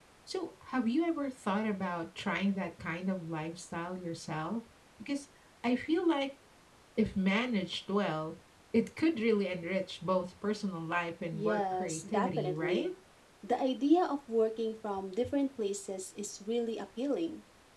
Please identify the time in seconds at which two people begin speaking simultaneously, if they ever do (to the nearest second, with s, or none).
11 s